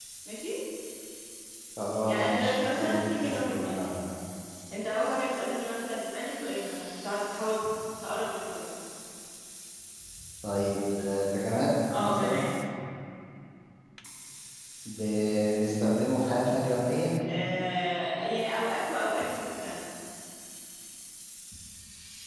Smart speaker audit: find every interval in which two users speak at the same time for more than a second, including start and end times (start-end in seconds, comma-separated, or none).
2.0-3.8